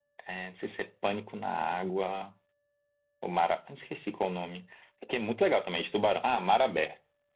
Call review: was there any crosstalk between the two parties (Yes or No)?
No